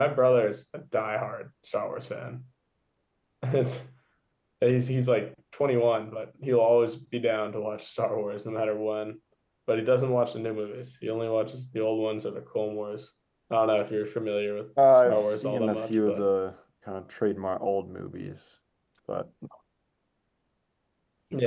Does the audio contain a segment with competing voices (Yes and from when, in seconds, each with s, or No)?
Yes, from 15.1 s